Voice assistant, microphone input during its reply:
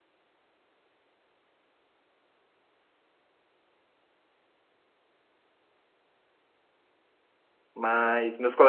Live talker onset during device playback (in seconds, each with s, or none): 7.7 s